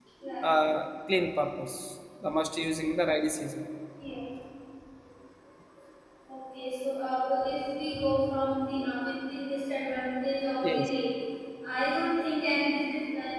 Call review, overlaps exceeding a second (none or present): none